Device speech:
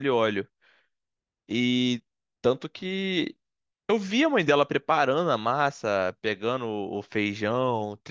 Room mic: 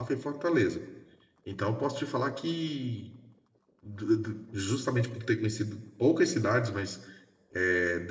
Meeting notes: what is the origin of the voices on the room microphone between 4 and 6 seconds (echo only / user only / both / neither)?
user only